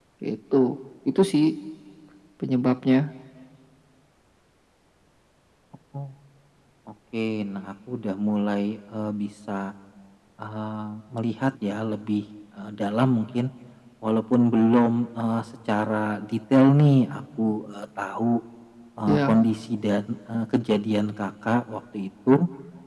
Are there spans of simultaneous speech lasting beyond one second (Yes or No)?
No